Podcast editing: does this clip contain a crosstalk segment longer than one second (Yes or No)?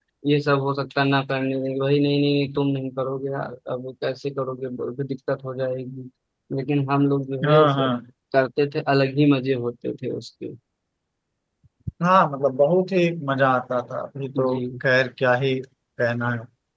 No